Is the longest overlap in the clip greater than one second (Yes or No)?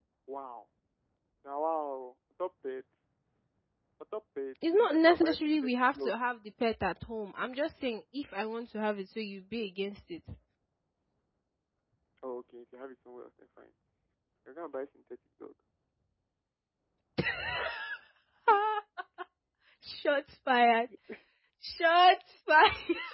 Yes